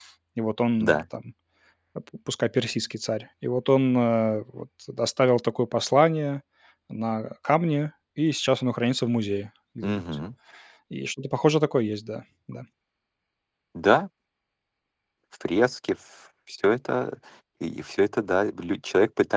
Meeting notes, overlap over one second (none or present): none